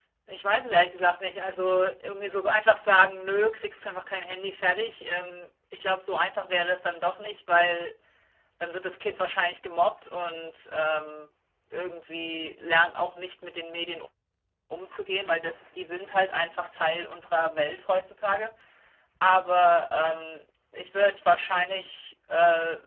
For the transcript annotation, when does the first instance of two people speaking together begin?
none

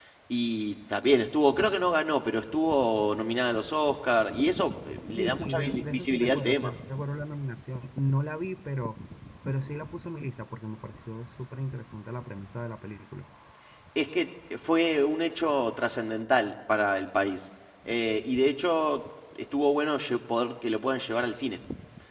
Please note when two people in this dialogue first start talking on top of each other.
5.2 s

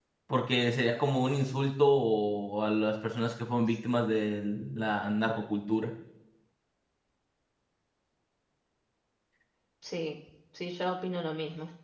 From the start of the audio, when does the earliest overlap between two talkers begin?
none

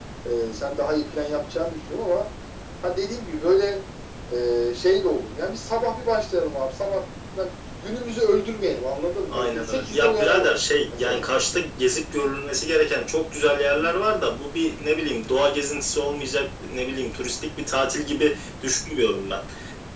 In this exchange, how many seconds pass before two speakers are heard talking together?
9.3 s

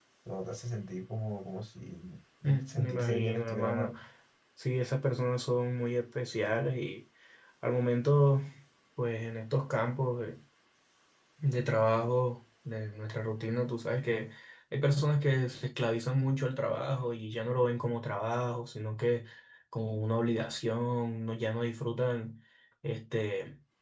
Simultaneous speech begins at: 2.7 s

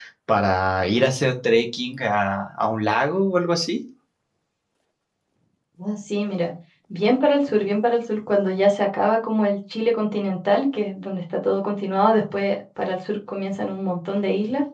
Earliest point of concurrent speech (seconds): none

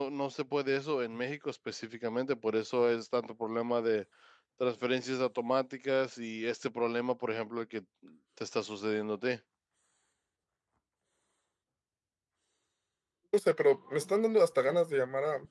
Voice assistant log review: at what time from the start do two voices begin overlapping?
none

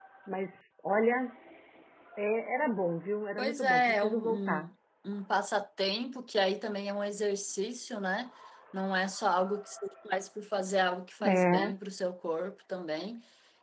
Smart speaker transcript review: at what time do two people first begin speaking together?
3.4 s

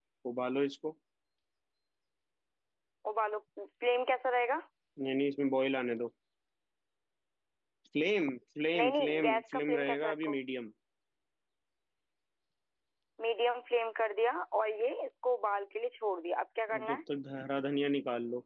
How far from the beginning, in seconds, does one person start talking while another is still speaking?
8.8 s

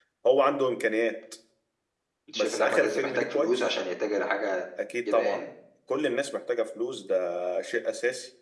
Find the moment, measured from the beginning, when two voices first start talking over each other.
2.4 s

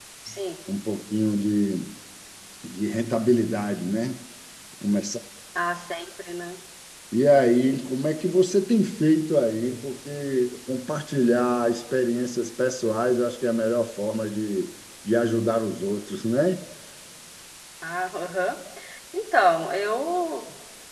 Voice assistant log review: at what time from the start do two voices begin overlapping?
none

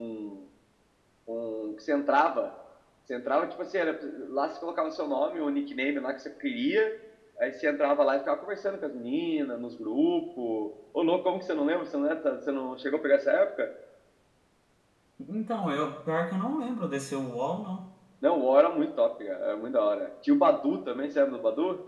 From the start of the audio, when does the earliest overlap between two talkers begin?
none

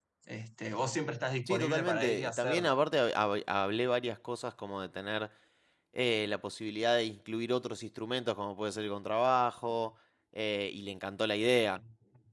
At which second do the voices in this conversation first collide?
1.5 s

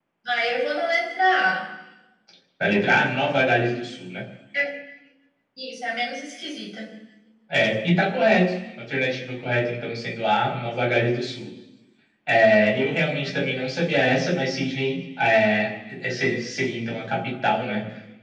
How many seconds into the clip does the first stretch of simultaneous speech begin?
none

